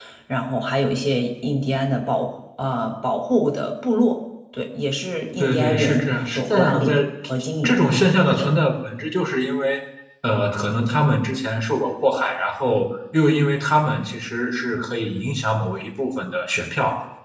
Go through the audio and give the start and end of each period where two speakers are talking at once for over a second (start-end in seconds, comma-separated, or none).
5.4-7.0